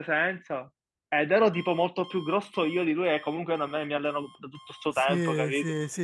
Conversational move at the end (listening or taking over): taking over